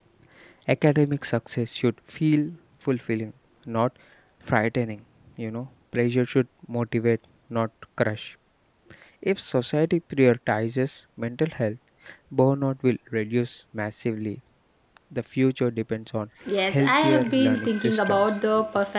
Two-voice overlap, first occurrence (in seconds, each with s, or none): 16.5 s